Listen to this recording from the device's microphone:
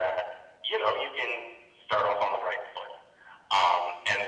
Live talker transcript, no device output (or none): none